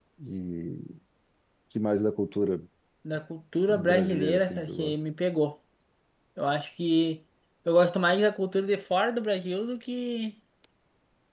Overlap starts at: 3.7 s

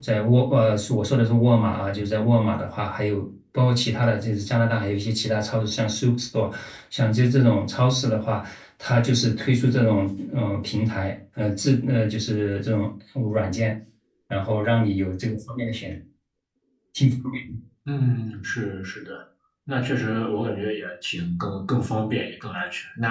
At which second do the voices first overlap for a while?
none

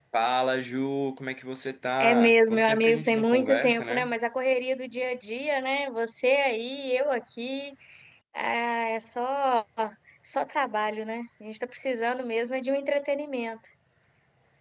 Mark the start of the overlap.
2.0 s

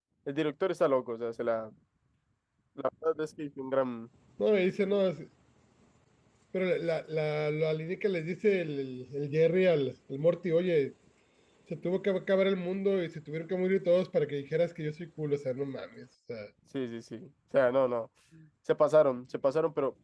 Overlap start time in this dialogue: none

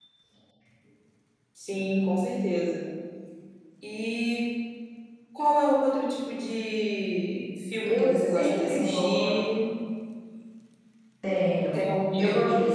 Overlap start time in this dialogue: 7.8 s

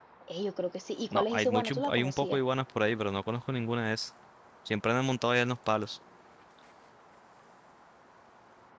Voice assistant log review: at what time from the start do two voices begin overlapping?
1.1 s

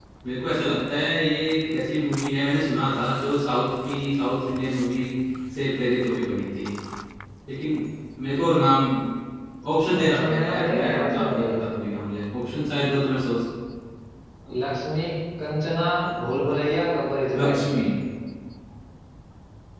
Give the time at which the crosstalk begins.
10.0 s

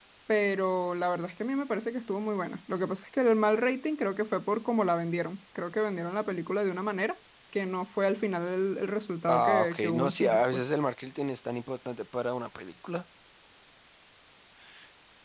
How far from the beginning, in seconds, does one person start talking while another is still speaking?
9.3 s

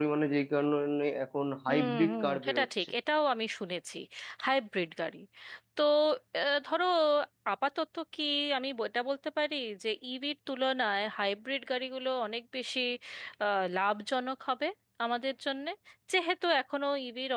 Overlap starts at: 1.7 s

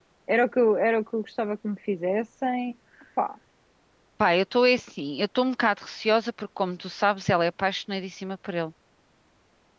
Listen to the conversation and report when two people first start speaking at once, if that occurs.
none

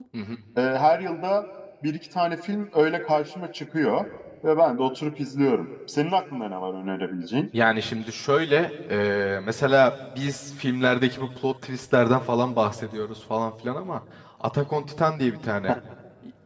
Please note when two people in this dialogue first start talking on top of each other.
none

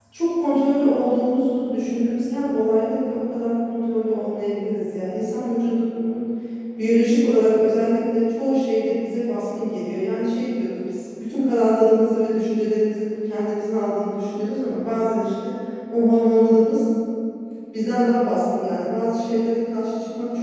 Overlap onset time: none

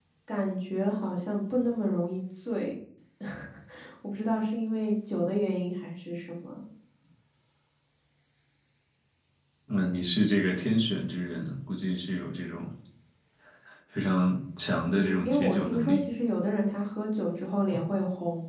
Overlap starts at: 14.8 s

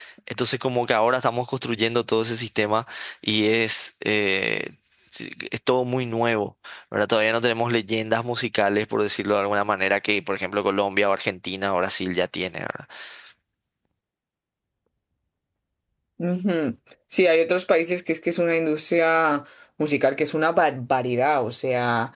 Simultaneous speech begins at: none

